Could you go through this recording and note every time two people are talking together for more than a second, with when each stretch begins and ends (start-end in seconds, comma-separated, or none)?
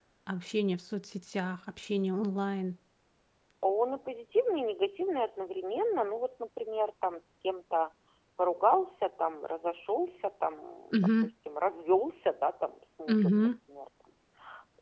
none